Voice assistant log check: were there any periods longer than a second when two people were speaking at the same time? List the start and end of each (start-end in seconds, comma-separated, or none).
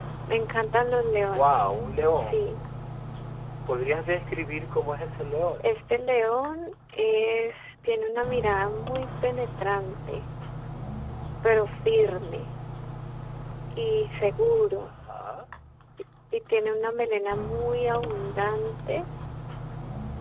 none